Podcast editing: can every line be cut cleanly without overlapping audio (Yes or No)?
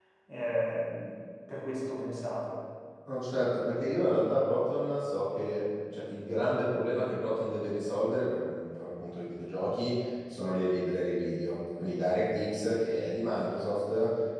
Yes